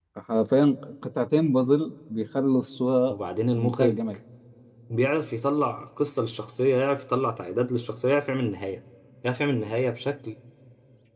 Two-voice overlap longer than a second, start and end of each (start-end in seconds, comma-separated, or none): none